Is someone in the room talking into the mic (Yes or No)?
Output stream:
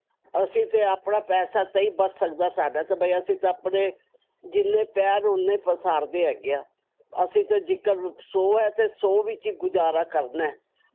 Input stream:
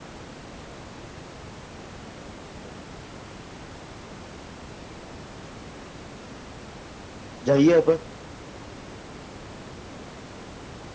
Yes